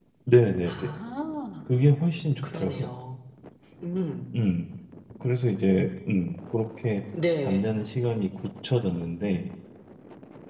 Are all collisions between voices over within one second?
Yes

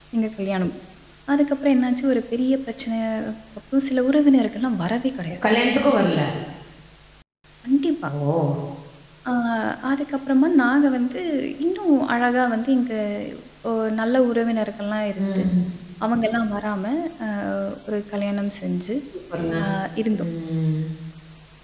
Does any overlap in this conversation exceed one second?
No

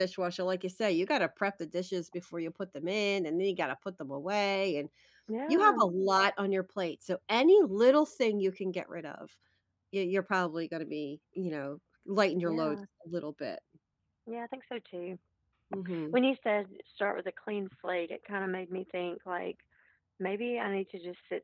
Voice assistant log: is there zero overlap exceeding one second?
Yes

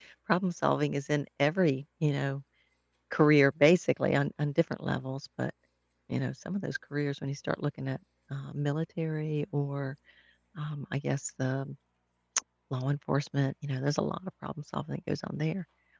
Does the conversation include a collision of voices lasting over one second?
No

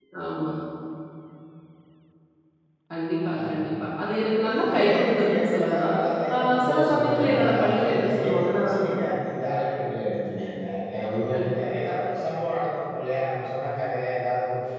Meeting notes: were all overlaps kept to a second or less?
No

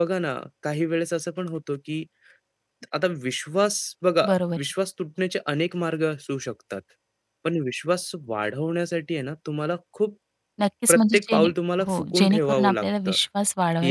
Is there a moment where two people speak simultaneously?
Yes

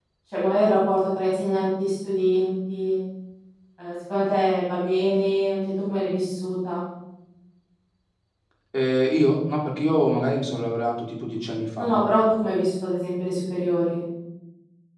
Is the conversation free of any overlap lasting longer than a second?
Yes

